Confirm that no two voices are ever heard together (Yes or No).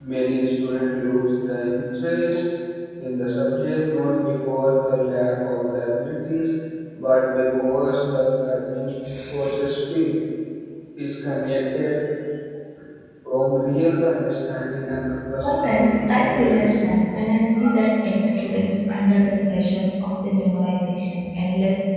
No